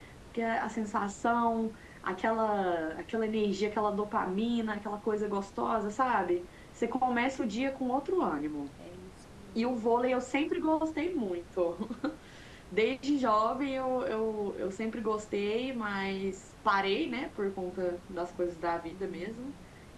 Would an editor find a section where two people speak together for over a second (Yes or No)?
No